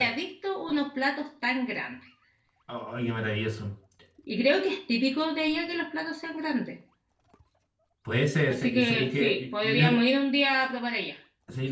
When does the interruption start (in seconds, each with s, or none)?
8.5 s